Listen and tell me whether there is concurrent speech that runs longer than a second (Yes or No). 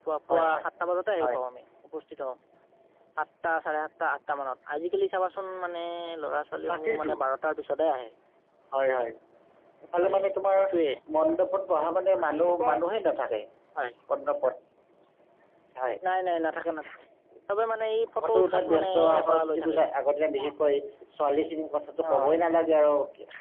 Yes